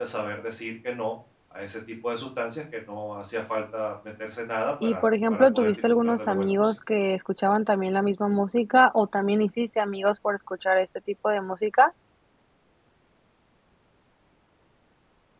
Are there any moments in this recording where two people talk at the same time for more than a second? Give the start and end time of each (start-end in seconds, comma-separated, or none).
4.8-6.7